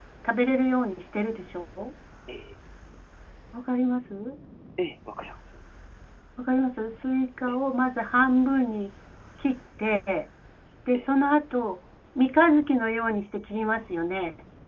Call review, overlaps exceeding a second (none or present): none